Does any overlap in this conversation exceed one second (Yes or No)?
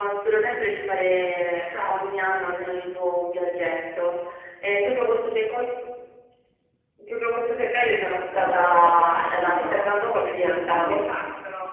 Yes